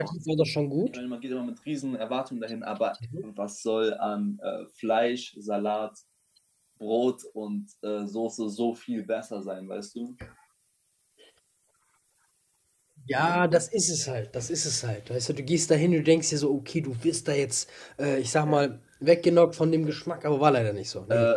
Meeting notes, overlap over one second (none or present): none